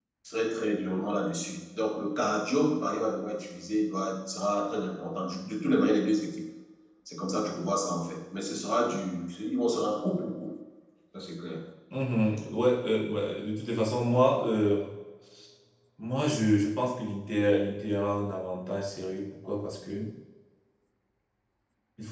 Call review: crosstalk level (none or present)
none